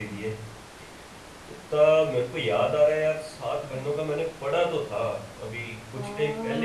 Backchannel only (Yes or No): No